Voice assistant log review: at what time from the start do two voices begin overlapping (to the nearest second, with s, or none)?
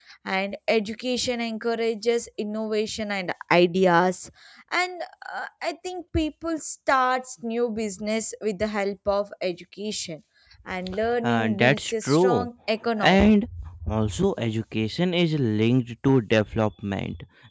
11 s